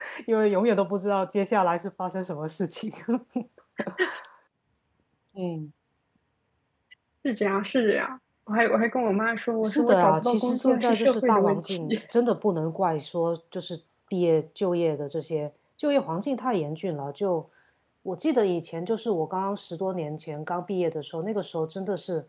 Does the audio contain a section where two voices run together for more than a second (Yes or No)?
Yes